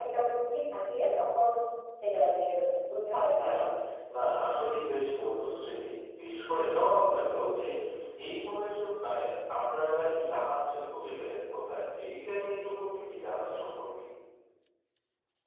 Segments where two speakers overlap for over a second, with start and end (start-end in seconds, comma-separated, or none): none